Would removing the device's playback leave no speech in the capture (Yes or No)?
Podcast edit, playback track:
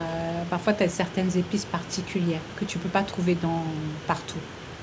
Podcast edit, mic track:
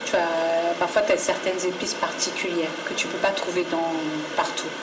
Yes